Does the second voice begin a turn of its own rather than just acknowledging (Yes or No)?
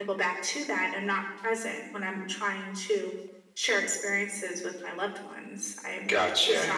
Yes